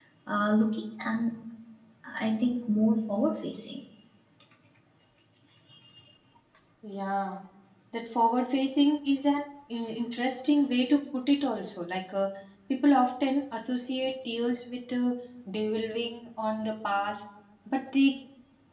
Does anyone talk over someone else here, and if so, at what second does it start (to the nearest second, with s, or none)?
none